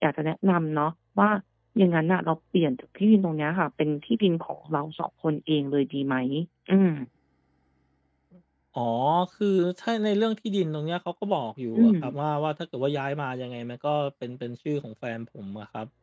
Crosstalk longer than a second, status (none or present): none